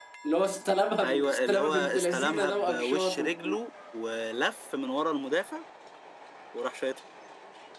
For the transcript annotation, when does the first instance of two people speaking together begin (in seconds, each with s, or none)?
1.0 s